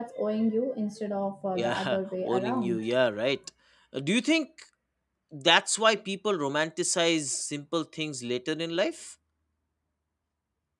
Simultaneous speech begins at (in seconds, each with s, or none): 1.5 s